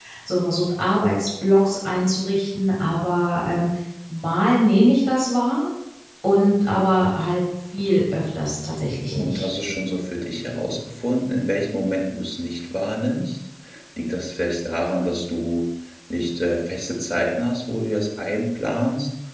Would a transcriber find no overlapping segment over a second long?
Yes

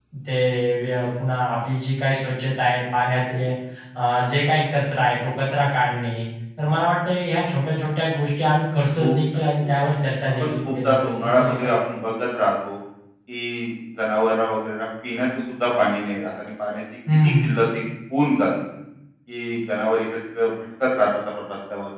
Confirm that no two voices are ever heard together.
No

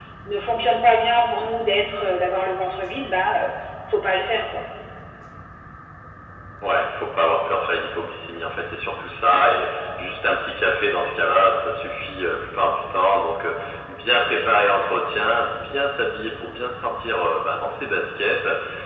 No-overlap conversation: Yes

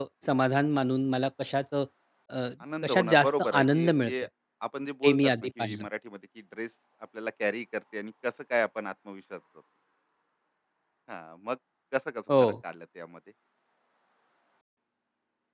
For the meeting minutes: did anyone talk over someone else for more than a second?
Yes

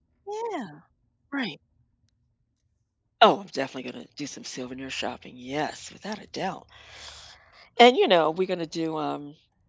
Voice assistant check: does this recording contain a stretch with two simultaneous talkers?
No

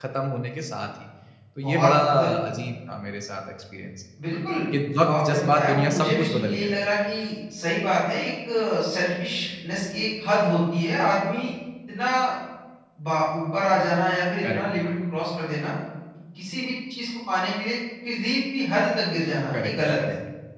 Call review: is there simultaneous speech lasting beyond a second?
Yes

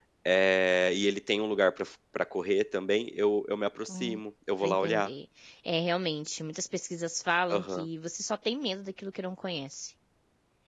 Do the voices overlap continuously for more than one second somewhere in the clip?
No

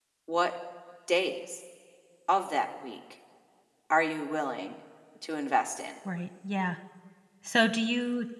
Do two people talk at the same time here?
No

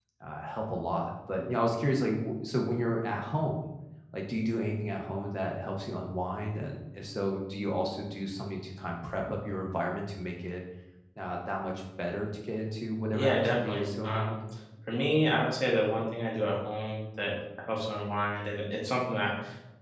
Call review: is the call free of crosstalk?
No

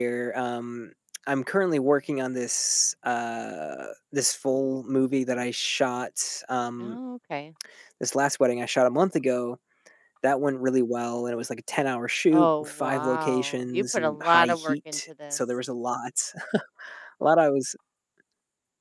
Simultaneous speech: Yes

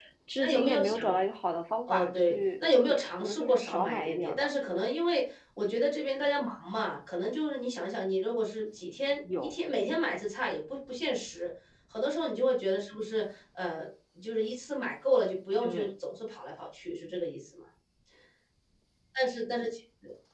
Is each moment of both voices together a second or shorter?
No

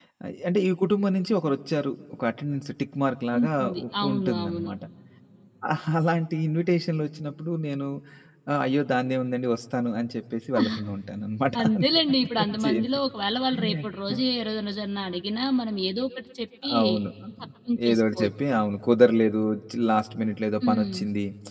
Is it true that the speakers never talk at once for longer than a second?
No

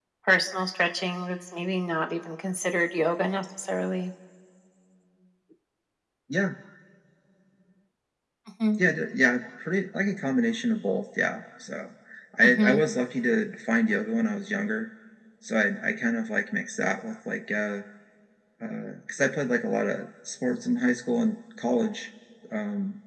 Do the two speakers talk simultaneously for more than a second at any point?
No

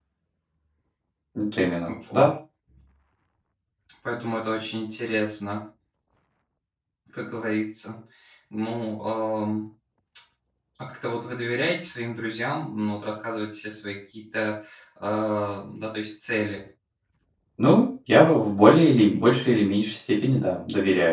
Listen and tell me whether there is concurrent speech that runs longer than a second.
No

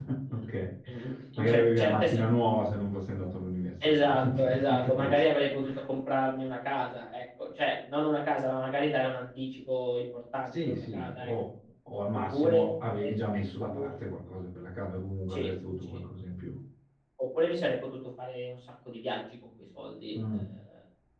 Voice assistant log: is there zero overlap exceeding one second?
No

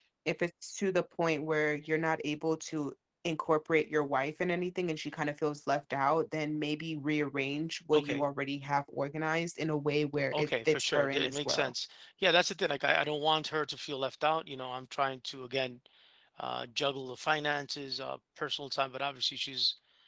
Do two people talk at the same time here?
Yes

